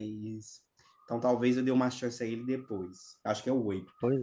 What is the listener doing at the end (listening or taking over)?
listening